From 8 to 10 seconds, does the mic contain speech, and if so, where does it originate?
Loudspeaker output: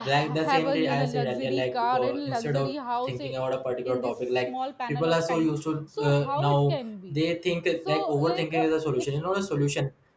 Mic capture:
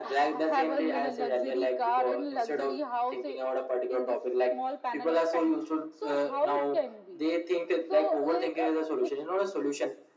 echo only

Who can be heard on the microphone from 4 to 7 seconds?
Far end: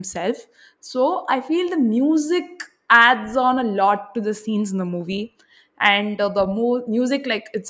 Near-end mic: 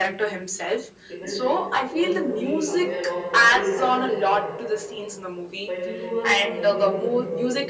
both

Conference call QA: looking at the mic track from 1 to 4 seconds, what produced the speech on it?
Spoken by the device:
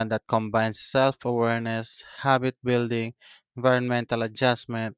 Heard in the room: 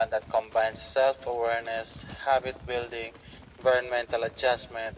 echo only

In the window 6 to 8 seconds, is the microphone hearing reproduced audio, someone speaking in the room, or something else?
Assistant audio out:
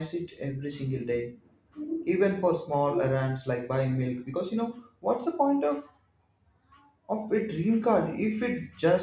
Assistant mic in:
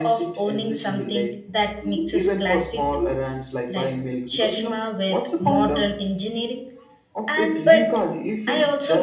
both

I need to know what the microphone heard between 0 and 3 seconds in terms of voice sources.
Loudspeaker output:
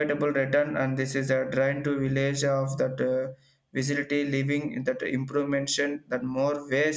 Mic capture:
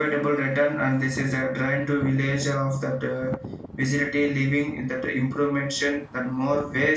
echo only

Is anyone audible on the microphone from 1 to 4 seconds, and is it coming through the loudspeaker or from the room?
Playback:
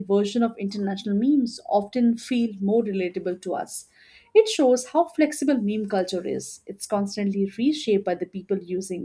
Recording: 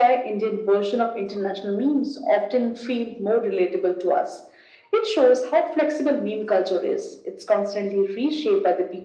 echo only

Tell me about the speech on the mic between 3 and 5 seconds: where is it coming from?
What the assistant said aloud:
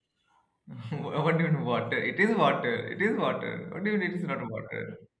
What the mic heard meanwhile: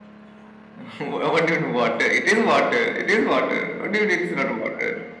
echo only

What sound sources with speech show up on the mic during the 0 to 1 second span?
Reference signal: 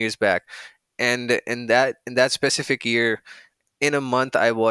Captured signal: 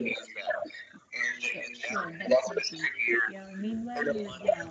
echo only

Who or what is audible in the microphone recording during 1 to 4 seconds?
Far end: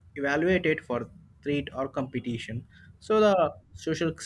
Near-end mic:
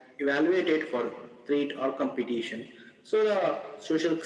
echo only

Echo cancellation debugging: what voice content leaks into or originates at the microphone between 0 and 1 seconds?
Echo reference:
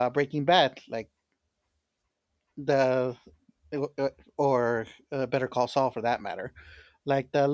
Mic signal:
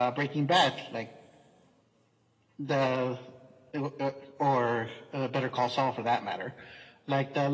echo only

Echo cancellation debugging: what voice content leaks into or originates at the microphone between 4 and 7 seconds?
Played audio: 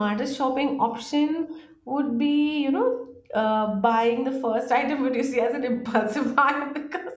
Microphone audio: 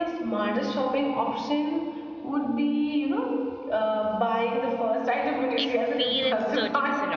both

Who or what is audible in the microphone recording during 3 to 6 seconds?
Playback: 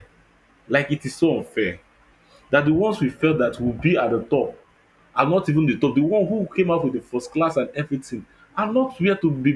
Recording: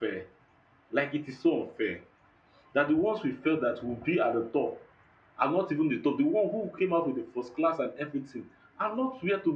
echo only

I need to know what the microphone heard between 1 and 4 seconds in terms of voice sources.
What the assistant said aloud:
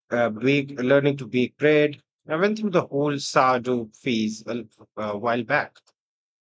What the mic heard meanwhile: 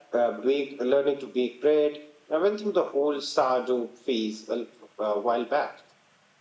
echo only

